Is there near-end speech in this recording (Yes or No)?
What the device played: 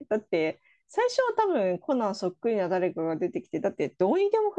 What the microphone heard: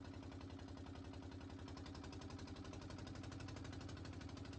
No